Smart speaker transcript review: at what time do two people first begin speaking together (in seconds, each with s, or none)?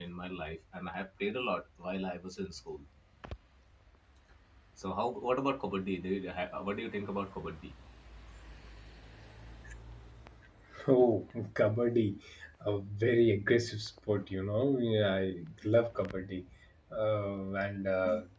none